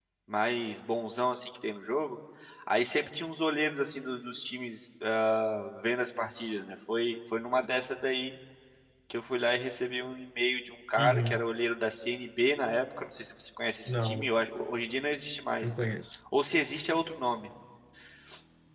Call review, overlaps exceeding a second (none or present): none